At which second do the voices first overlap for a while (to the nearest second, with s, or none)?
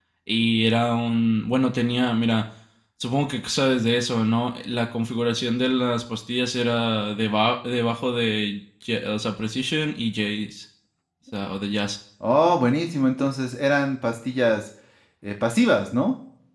none